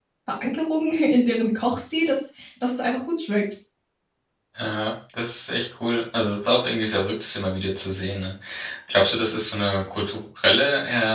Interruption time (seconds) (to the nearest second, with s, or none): none